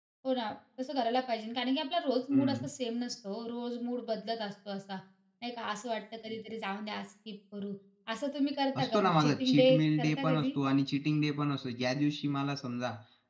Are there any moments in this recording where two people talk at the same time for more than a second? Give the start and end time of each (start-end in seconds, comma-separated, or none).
8.8-10.5